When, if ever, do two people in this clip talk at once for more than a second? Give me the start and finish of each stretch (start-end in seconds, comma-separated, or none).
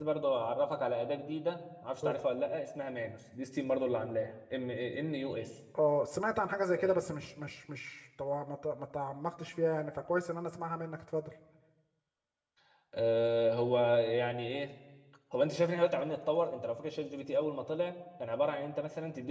none